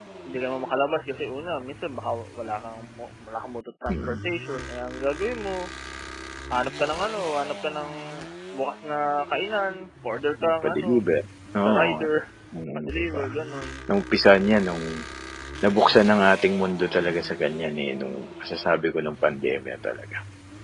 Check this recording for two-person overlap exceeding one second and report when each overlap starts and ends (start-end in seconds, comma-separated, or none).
none